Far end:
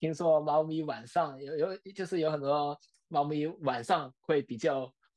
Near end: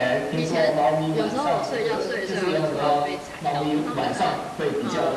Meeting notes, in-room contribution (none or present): present